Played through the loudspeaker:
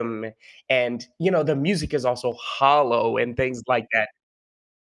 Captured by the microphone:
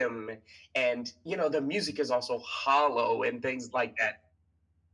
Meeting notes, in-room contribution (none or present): none